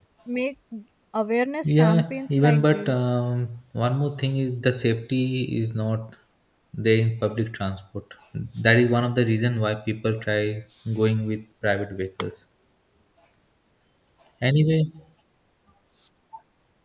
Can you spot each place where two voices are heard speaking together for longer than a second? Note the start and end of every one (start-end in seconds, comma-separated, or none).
1.6-3.0